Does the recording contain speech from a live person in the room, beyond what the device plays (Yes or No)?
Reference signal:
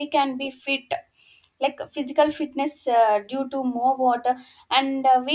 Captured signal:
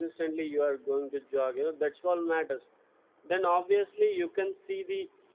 Yes